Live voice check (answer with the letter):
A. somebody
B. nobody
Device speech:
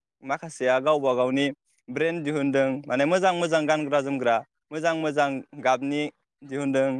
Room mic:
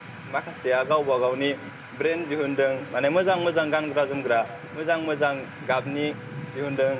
B